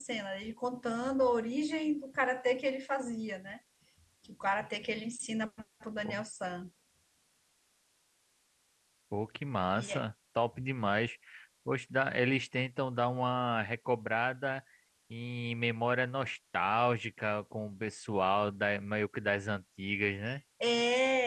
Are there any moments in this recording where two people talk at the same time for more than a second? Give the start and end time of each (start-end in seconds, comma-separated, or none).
none